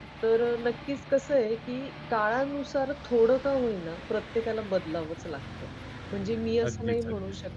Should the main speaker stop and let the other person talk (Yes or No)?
No